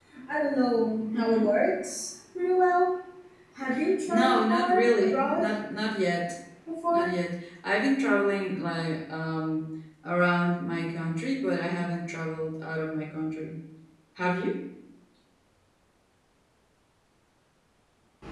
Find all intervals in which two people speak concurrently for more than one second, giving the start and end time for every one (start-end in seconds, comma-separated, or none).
4.1-5.5